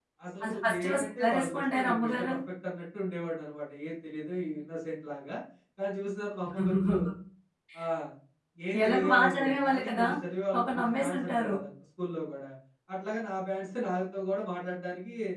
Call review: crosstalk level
present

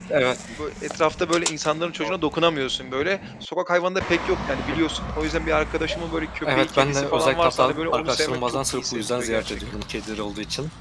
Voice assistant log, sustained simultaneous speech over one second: present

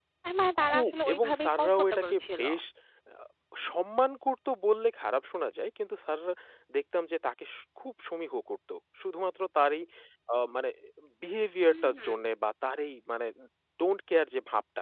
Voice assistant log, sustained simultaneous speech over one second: present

